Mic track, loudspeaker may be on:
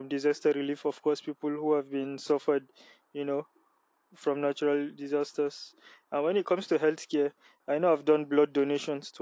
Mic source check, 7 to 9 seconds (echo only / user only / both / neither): user only